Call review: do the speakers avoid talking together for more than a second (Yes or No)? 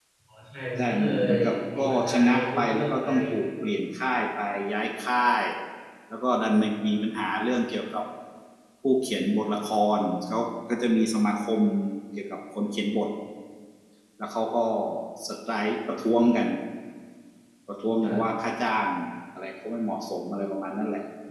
No